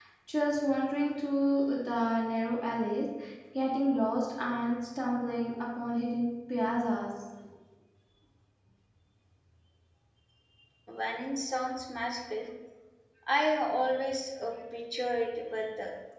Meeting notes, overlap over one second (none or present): none